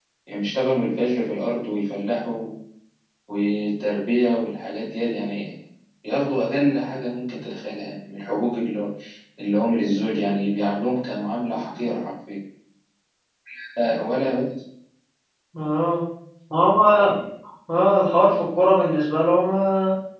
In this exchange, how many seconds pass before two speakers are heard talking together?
none

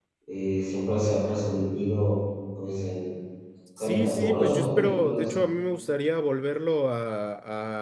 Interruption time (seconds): 3.8 s

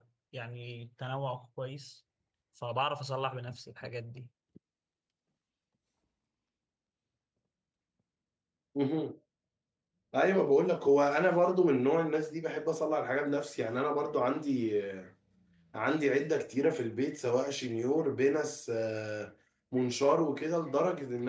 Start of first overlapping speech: none

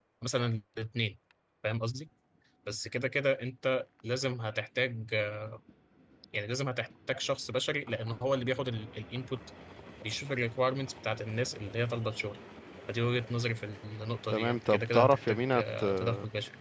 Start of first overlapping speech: 14.3 s

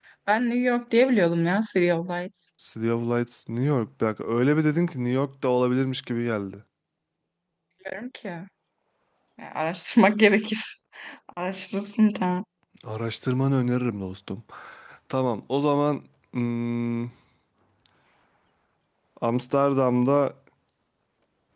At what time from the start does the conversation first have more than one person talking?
none

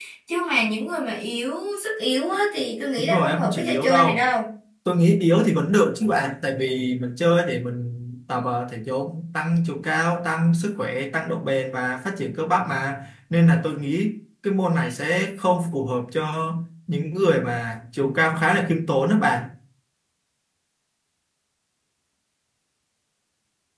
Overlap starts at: 3.0 s

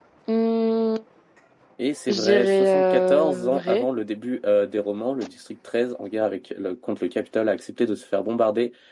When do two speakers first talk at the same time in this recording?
2.1 s

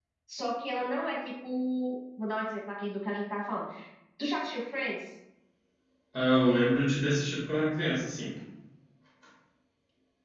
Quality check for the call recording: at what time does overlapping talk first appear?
none

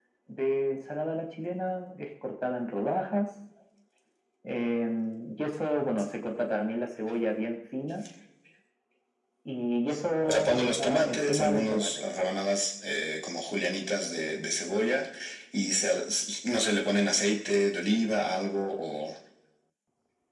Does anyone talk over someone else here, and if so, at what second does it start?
10.2 s

